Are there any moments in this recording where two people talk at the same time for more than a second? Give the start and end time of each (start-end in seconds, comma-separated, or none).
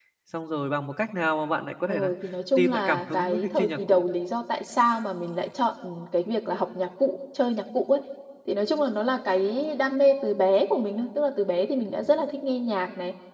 2.6-4.0